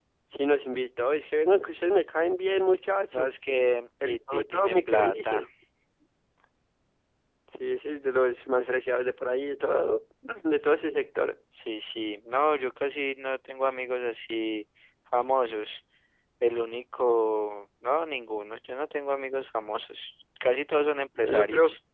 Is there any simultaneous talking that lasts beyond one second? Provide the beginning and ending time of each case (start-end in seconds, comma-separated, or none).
4.0-5.5